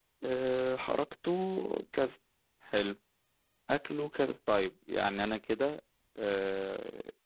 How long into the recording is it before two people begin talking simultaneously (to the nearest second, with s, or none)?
none